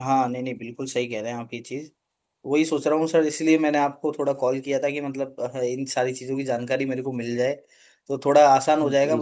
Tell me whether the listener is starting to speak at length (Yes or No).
No